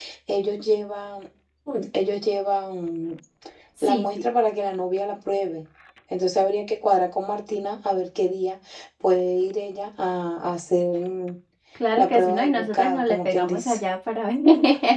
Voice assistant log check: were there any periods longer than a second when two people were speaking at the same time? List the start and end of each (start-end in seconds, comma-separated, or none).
12.0-13.8